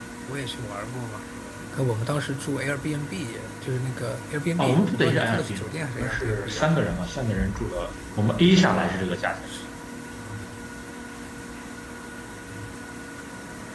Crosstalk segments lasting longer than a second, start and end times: 4.6-6.7

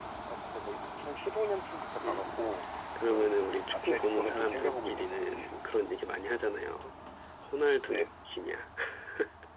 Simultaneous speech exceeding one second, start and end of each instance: 3.7-5.5

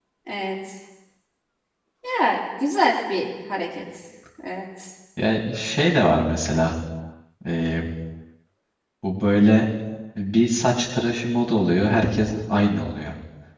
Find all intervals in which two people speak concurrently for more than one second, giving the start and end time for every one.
none

